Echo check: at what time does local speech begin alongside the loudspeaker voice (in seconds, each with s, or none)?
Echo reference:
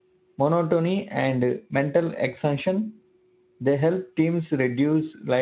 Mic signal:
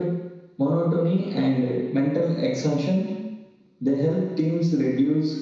none